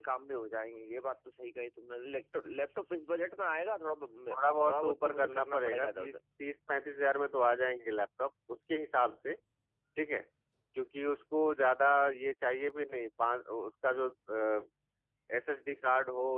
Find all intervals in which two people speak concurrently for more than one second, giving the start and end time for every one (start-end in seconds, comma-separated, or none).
4.3-6.1